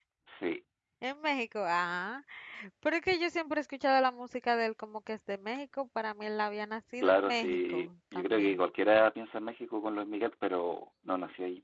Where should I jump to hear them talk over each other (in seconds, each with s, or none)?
7.0 s